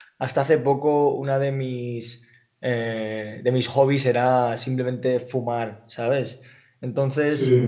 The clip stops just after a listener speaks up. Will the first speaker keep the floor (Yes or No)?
Yes